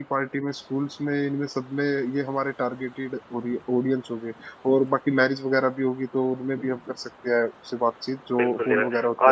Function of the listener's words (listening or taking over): taking over